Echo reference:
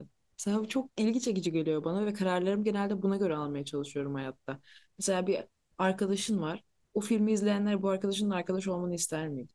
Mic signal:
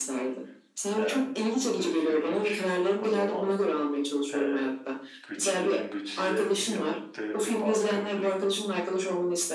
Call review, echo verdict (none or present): present